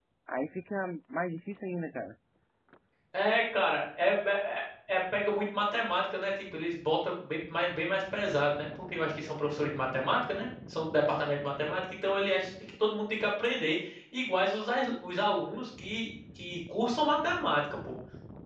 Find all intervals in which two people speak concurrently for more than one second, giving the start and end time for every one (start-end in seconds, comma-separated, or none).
none